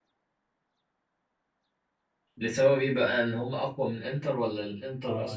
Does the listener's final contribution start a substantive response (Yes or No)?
Yes